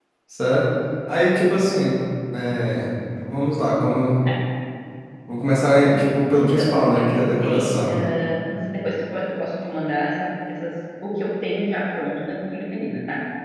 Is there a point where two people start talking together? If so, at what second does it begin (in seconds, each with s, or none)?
5.9 s